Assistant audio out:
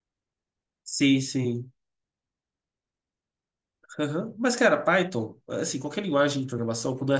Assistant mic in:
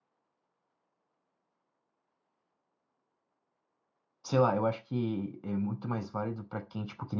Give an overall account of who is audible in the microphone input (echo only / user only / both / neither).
user only